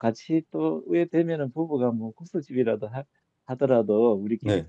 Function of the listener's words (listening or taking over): listening